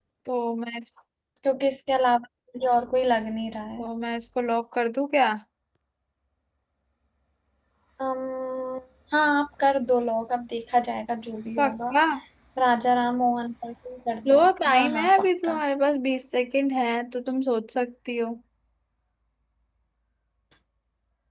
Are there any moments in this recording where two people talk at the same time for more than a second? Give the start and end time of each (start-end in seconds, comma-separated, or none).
14.3-15.6